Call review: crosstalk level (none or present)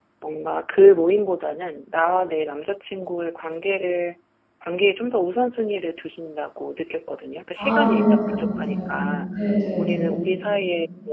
present